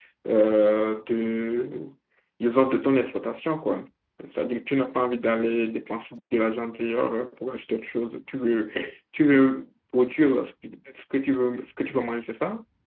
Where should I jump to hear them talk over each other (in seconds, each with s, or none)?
none